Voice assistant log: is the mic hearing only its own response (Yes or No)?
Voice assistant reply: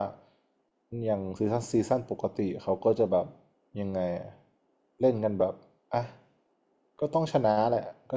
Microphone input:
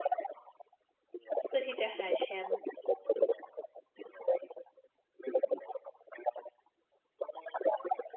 No